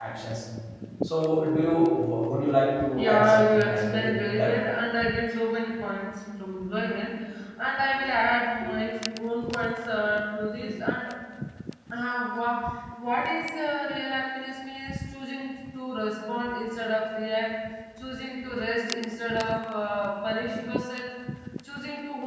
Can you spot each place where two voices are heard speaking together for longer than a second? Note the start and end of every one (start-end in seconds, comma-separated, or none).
3.0-4.5